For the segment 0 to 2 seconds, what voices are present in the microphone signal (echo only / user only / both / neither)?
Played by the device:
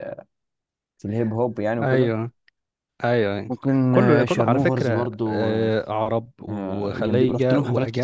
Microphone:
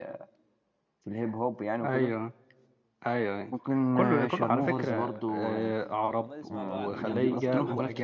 echo only